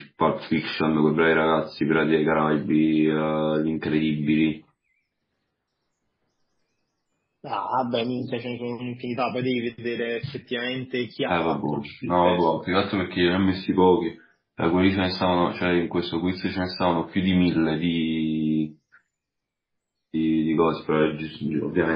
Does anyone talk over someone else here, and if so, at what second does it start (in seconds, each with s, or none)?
11.3 s